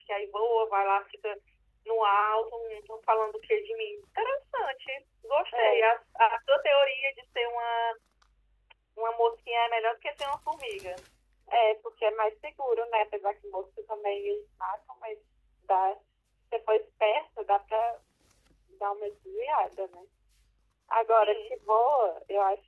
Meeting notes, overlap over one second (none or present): none